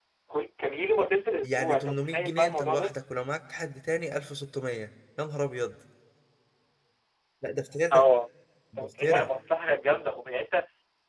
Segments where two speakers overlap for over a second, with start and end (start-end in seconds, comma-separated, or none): 1.4-2.9